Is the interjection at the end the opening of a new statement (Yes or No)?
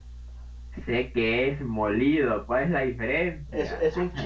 Yes